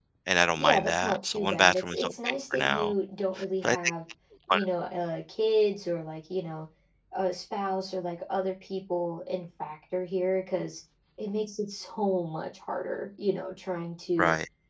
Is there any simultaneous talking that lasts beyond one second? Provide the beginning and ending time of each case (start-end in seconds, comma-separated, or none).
0.6-2.9